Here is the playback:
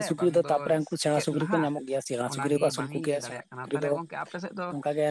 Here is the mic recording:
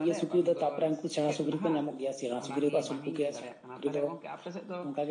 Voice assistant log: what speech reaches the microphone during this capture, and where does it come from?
echo only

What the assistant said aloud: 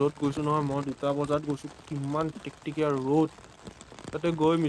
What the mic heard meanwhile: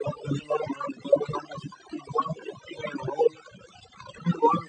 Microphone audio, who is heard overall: echo only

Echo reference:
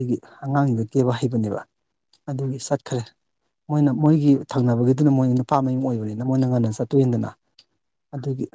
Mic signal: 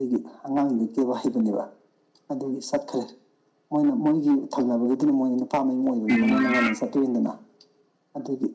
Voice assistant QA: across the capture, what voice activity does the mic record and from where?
both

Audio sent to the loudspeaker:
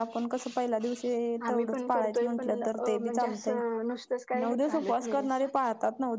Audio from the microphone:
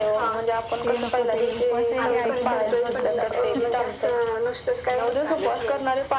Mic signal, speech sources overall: both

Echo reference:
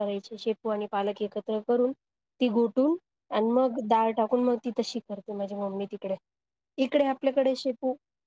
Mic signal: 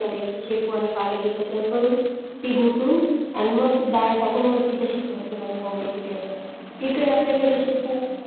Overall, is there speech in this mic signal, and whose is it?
echo only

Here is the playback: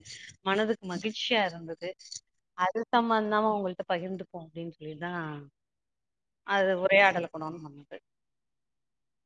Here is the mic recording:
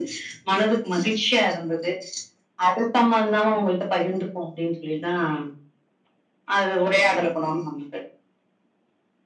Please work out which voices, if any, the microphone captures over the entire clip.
echo only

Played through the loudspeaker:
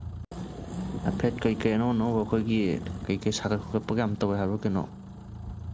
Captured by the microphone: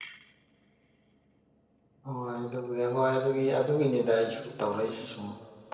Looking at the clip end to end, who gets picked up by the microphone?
user only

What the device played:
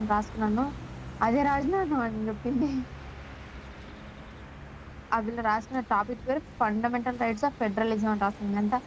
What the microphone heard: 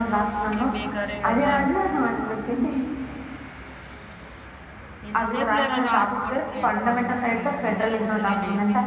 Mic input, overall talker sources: both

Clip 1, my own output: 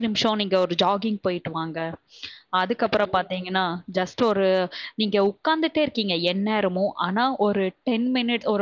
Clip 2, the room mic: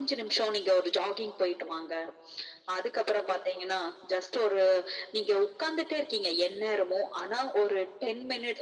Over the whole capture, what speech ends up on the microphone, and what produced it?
echo only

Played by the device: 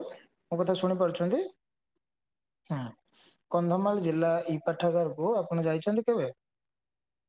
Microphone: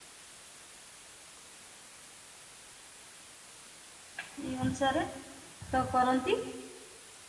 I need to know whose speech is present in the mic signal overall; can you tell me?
user only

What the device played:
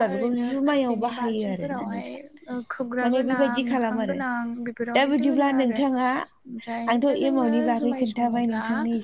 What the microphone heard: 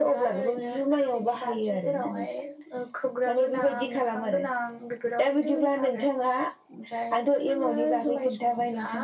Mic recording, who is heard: echo only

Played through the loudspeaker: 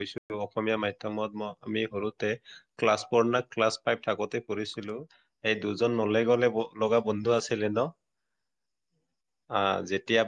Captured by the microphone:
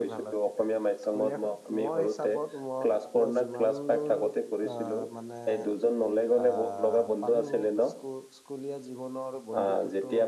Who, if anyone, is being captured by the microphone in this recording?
both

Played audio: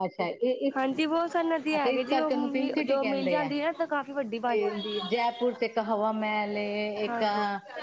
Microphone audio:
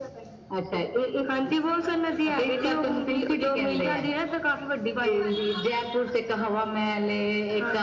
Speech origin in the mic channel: echo only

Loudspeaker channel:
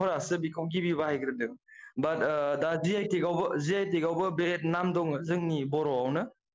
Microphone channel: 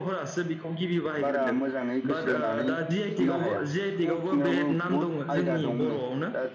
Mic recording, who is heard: both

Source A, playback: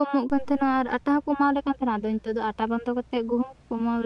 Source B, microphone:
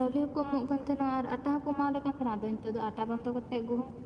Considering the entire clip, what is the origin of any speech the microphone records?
echo only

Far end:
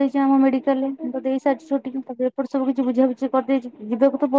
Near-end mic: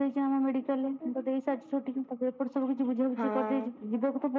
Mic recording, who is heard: both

